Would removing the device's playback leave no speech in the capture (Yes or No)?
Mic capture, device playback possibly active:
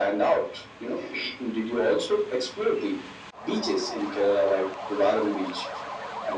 Yes